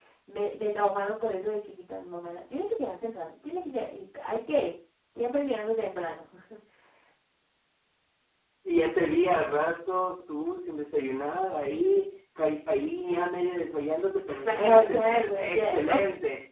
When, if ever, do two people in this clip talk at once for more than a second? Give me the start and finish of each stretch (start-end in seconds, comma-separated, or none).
14.4-16.0